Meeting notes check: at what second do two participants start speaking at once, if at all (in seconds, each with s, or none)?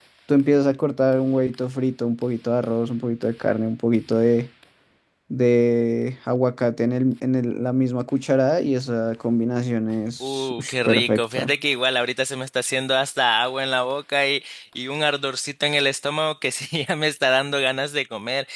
10.2 s